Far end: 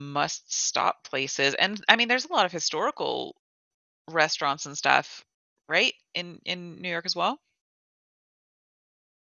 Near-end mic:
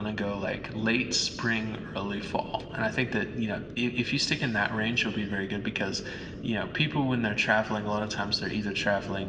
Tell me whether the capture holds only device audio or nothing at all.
No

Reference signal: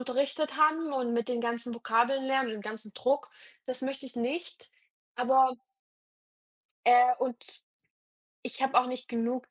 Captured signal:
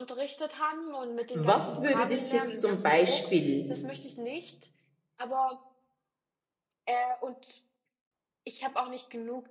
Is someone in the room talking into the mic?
Yes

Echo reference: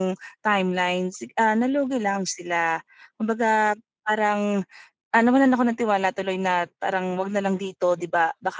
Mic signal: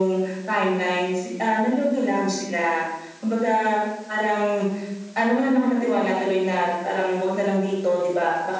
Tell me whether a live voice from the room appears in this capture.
No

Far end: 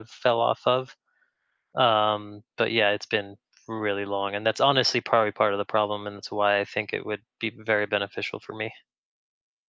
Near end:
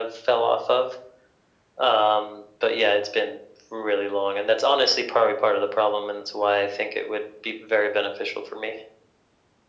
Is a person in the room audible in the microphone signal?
No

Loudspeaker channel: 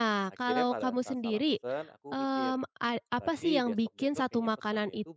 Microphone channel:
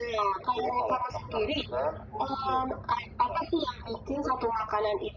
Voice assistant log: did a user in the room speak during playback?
No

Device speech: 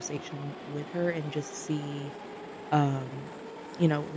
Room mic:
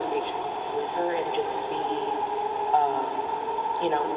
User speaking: No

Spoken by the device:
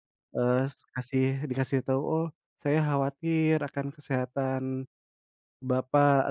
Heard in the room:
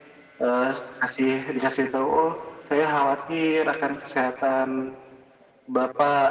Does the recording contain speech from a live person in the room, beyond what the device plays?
No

